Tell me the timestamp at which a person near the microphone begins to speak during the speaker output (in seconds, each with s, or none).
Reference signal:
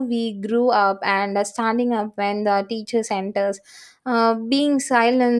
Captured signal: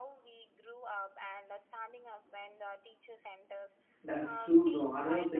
4.0 s